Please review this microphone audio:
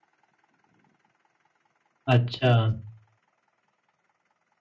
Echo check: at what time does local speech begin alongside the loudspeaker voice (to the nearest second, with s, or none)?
2 s